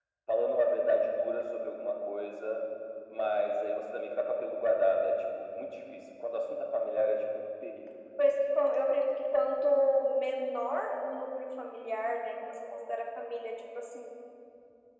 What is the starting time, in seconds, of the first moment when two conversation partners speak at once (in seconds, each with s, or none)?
none